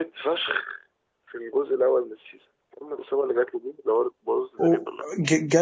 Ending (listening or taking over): taking over